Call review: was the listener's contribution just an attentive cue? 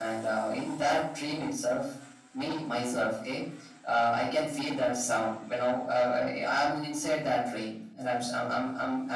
Yes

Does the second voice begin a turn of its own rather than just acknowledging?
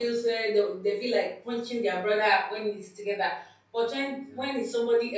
No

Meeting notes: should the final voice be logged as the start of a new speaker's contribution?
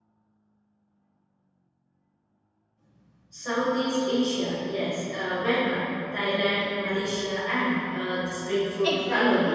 Yes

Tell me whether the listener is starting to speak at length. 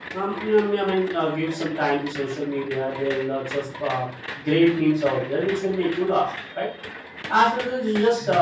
No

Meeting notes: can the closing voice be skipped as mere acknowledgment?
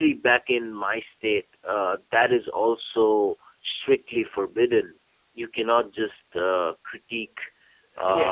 Yes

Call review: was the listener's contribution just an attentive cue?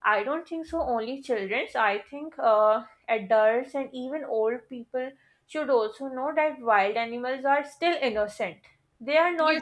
No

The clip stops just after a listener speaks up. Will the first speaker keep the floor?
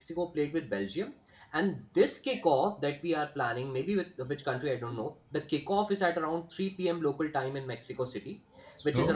Yes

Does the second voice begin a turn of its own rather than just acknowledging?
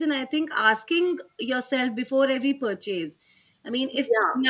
No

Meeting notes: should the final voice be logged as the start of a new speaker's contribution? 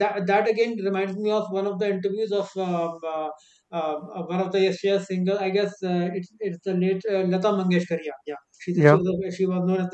No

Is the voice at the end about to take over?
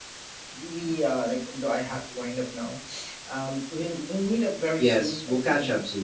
Yes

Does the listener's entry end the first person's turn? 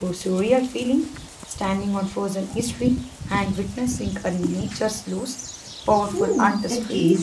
Yes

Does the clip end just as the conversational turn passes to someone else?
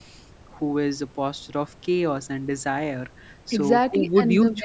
Yes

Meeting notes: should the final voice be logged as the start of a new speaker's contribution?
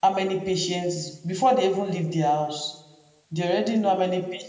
No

